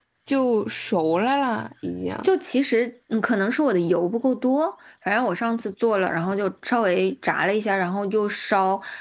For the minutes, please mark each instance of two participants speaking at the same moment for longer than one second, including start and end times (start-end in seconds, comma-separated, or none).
none